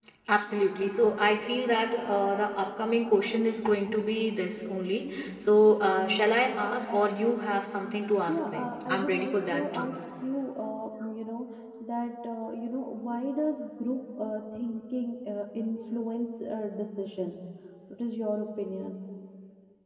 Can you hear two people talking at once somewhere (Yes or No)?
Yes